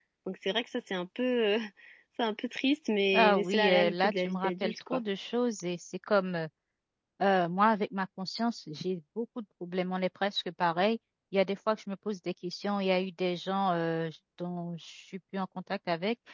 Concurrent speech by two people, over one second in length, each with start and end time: 3.1-5.0

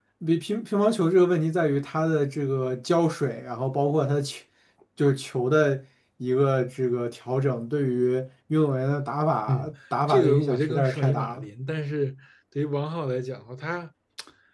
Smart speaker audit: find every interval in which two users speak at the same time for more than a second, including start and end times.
10.1-11.5

